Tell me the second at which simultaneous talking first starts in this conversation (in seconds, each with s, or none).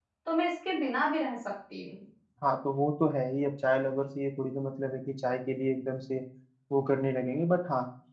none